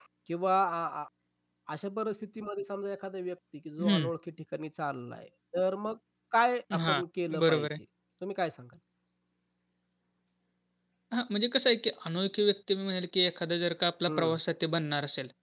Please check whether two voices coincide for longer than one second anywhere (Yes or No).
No